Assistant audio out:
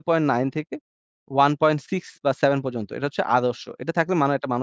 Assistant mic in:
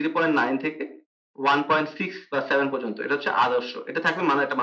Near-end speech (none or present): none